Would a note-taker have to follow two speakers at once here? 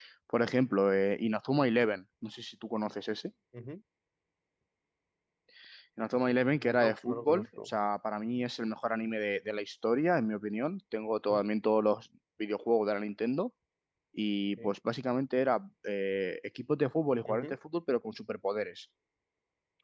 Yes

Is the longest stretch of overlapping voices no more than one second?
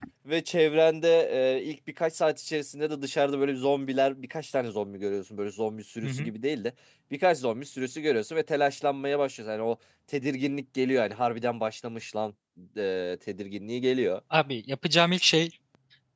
Yes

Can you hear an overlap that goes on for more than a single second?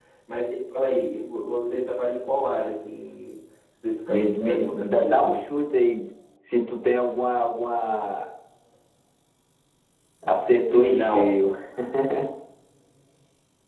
Yes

